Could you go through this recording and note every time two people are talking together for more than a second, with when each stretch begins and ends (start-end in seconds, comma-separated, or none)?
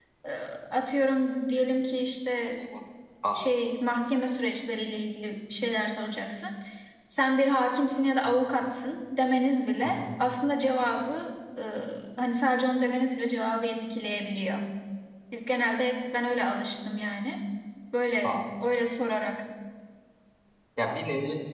none